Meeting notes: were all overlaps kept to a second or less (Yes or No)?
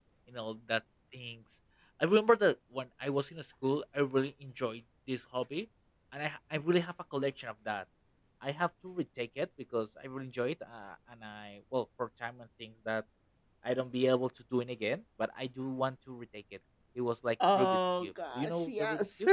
No